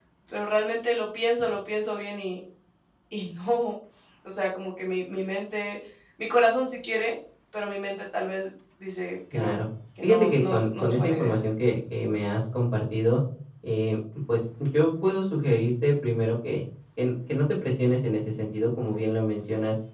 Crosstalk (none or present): present